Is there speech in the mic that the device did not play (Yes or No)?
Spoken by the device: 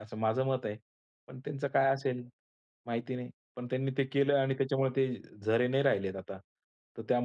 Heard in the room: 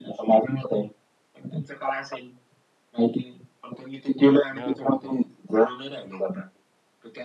Yes